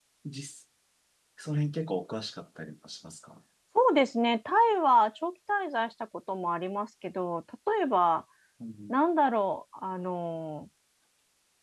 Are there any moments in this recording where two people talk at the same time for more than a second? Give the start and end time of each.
none

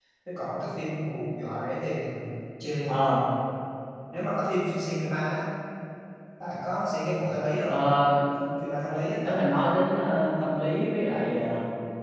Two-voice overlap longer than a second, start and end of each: none

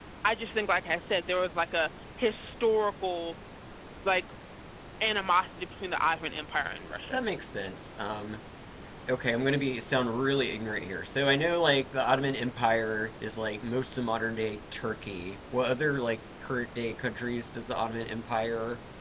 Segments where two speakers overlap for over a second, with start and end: none

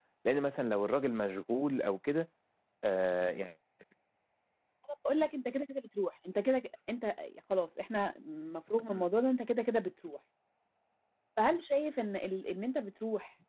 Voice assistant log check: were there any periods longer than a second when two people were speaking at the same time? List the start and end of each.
none

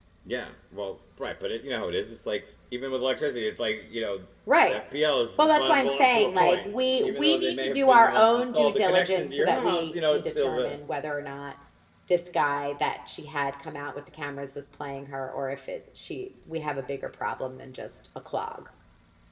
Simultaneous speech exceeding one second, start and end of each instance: 5.4-10.8

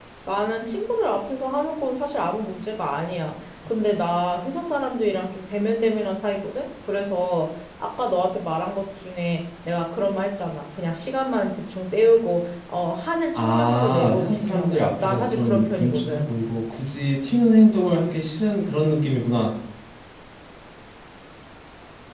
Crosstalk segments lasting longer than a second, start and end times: 13.4-16.2

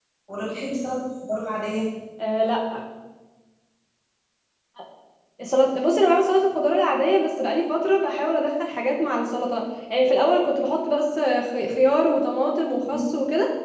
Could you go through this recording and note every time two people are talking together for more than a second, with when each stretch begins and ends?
none

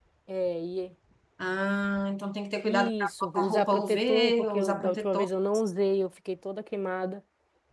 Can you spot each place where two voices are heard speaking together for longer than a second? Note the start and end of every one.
2.6-5.3

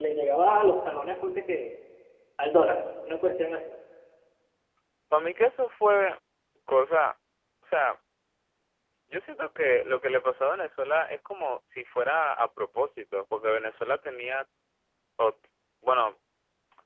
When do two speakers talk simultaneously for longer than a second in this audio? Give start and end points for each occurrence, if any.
none

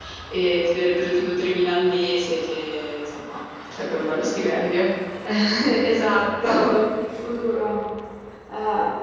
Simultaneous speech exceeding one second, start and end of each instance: none

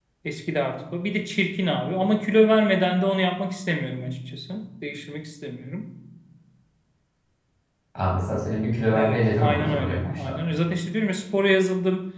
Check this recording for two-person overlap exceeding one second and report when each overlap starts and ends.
8.9-10.3

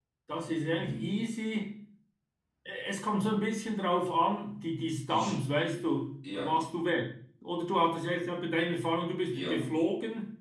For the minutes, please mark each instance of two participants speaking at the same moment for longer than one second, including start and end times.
none

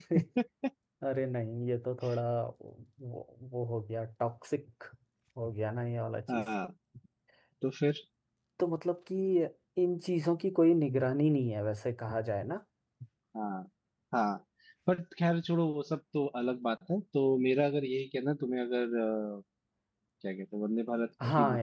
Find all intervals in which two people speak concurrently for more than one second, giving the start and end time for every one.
none

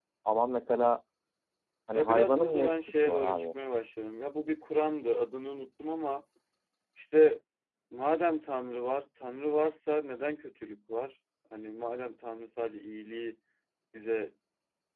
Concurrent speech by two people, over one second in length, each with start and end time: 1.9-3.5

